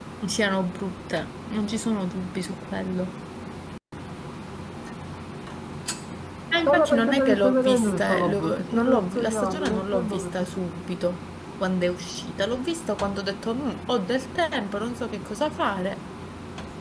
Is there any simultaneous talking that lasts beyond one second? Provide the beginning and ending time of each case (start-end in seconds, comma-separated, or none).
6.7-10.3